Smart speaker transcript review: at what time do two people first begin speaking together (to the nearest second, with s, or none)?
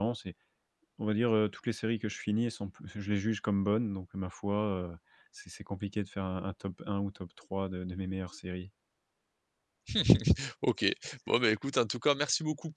none